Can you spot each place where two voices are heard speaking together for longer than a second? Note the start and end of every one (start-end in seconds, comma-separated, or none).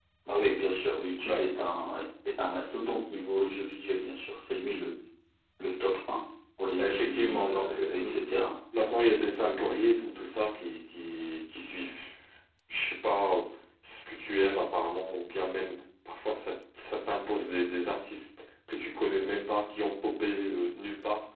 6.8-8.3